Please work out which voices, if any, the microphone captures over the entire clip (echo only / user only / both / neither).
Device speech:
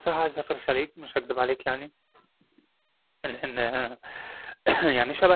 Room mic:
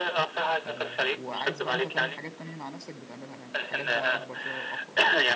both